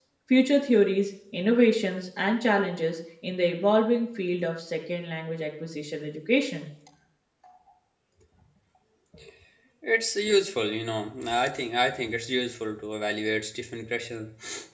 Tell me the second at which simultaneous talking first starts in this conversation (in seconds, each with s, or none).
none